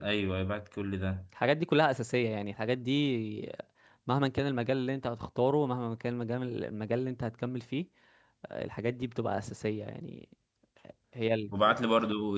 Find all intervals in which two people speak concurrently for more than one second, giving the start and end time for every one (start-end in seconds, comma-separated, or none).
none